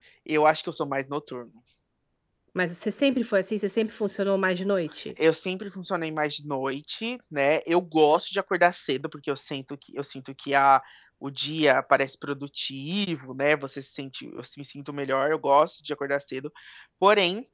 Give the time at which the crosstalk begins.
none

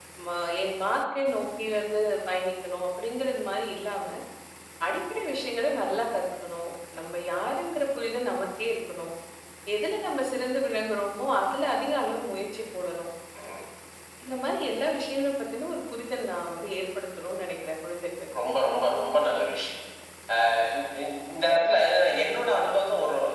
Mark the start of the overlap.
none

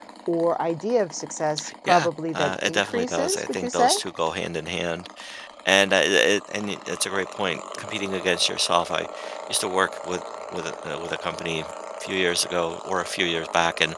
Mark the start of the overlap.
1.9 s

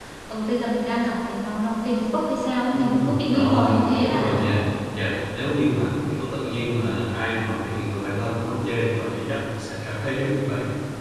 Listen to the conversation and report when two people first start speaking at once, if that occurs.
2.7 s

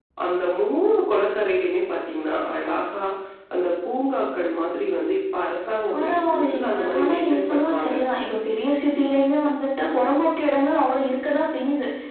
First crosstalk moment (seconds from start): 5.9 s

